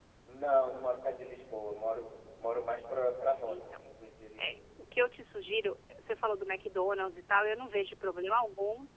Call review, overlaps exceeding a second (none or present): none